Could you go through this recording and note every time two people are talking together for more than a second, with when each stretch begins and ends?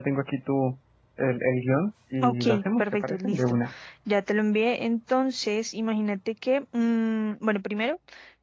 2.2-3.6

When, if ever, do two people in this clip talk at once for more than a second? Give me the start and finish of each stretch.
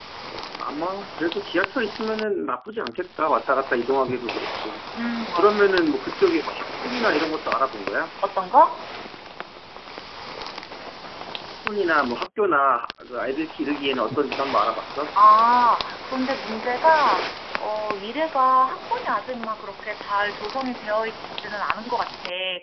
none

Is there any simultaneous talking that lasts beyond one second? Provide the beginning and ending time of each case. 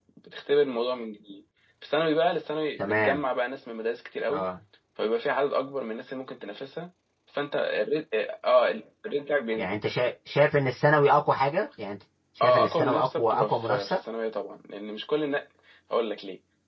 12.4-14.0

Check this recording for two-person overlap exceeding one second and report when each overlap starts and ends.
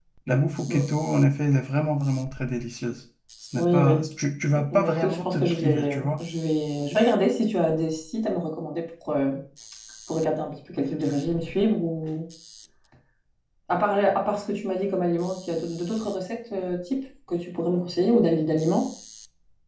4.6-6.2

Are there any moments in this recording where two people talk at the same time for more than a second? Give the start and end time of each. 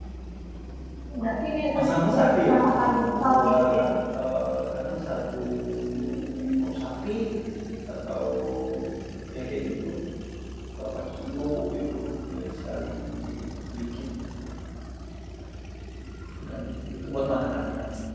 1.7-3.9

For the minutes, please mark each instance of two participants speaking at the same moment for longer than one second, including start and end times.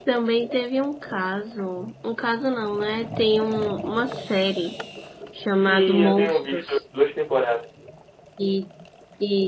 5.5-6.8

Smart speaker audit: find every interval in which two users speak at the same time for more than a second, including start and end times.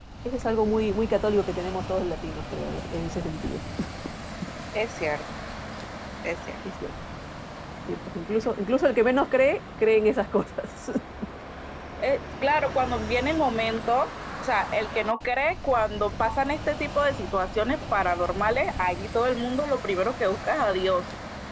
none

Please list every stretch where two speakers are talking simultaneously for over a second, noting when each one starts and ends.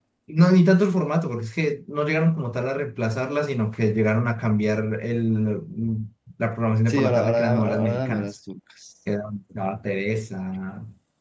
6.9-8.3

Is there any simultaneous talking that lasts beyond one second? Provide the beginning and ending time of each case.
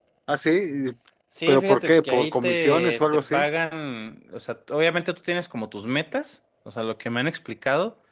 1.5-3.4

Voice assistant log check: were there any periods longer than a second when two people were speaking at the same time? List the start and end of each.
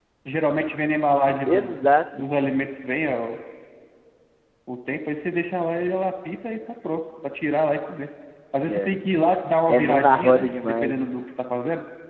9.7-11.1

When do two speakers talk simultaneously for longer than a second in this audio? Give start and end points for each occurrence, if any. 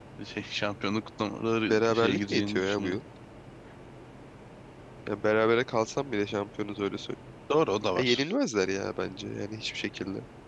1.7-3.0

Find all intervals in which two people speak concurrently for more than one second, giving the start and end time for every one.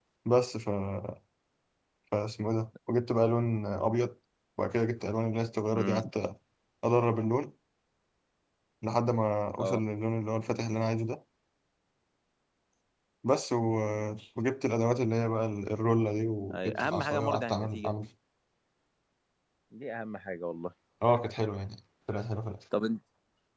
16.5-17.9

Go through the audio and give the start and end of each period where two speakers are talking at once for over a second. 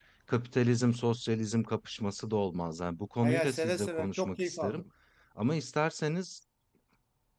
3.2-4.8

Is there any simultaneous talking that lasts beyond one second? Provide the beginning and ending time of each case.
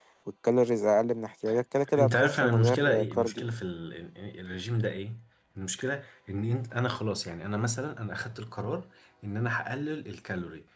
2.0-3.4

